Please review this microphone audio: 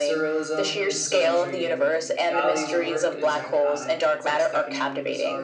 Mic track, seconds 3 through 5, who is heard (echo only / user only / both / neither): both